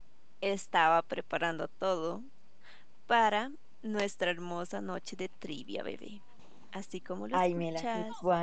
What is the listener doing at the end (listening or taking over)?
taking over